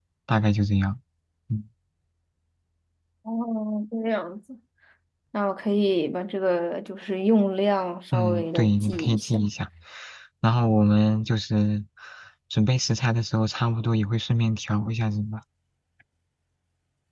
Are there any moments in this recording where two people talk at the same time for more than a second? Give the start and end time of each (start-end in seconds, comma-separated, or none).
8.1-9.4